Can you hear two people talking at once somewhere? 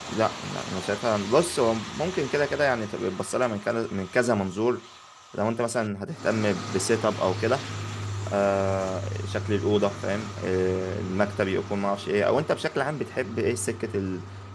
No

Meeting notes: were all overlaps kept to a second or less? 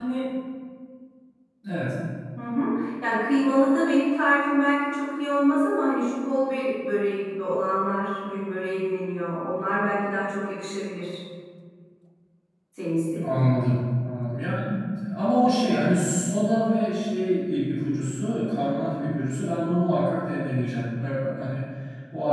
Yes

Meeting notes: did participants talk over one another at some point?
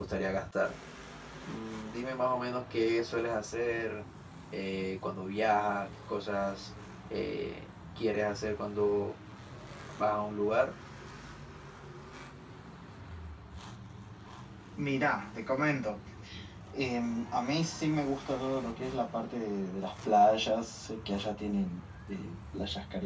No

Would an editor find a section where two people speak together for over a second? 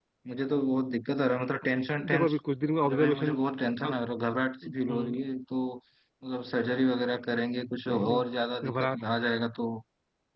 No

